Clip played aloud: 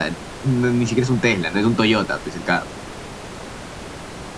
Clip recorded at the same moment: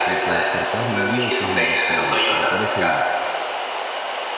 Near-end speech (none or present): present